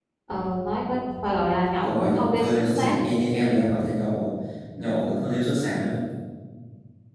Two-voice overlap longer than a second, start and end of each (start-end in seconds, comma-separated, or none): 1.8-3.1